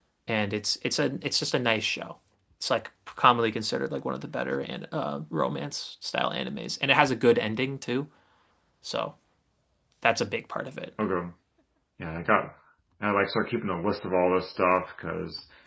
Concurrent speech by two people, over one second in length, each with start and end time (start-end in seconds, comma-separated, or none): none